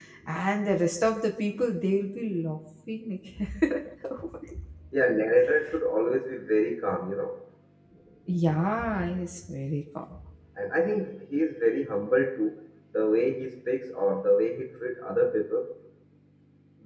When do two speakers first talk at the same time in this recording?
none

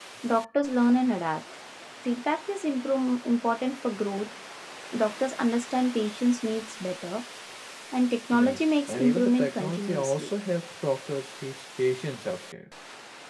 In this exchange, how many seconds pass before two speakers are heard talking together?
8.3 s

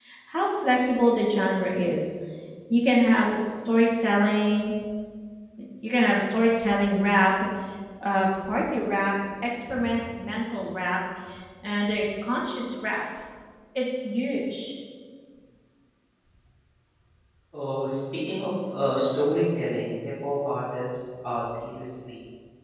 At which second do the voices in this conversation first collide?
none

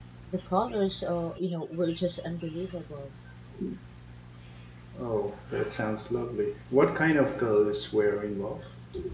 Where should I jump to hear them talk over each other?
none

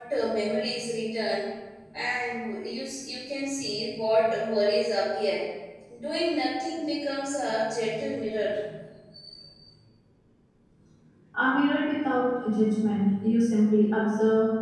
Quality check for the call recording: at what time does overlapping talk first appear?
none

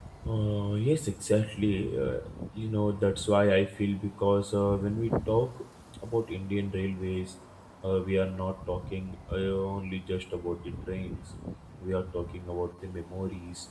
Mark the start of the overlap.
none

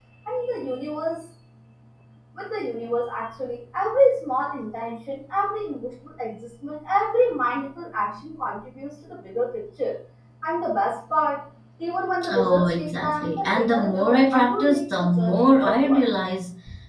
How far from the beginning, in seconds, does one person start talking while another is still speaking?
12.2 s

